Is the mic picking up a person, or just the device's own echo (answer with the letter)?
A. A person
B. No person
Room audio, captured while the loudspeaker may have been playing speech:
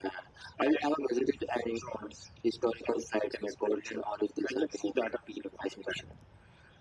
B